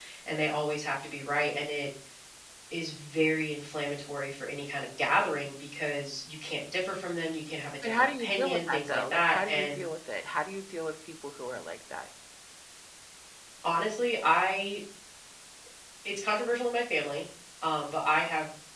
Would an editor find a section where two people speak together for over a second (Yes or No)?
Yes